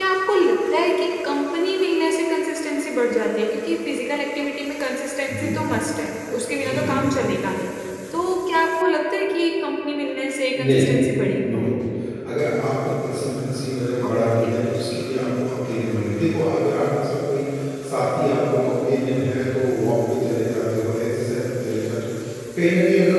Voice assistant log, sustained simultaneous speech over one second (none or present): none